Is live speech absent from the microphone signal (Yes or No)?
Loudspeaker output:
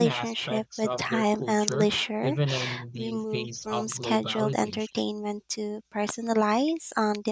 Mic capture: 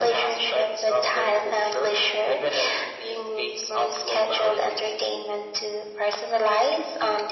Yes